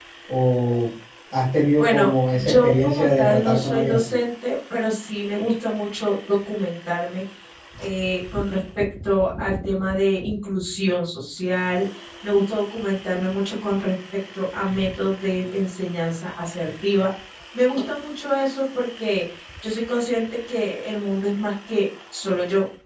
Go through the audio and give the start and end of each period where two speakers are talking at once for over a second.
1.8-4.0

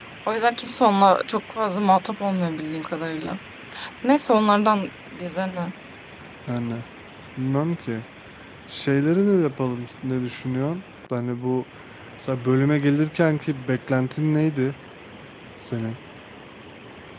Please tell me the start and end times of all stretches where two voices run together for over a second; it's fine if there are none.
none

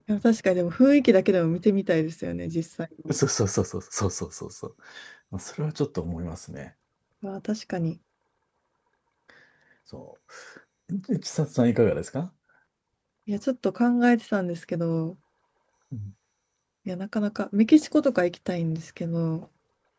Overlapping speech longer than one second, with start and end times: none

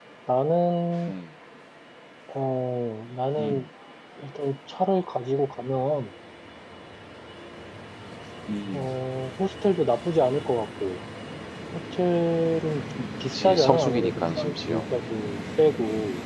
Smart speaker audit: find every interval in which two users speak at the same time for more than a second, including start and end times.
13.3-14.8

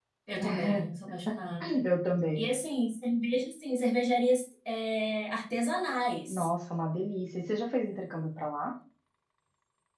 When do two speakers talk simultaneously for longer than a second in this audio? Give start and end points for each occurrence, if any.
none

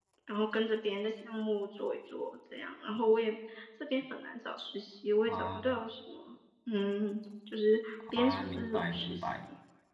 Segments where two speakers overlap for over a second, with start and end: 8.1-9.4

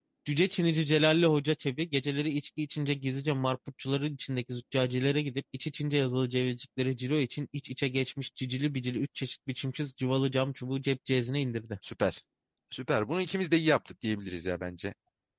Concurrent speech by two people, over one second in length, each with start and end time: none

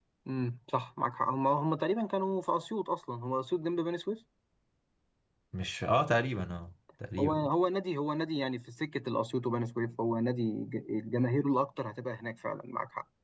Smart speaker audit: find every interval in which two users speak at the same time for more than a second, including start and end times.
none

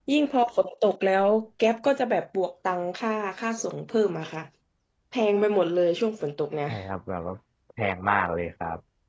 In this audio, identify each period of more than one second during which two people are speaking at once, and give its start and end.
none

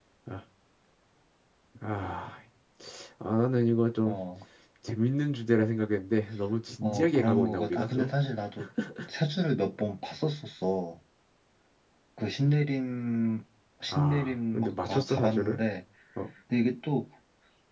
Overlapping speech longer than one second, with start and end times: 6.8-8.1, 13.9-15.6

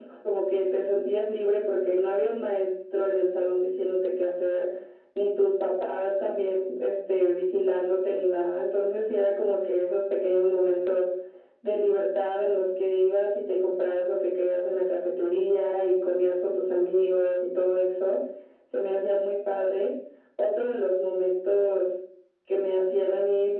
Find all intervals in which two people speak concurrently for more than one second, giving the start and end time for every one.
none

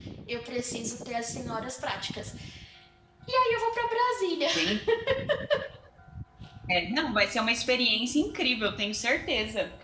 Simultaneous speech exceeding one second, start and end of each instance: none

